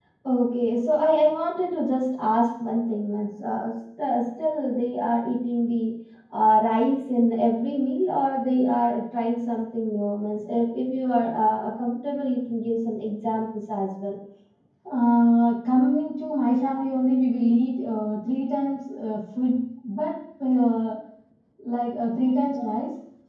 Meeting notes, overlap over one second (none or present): none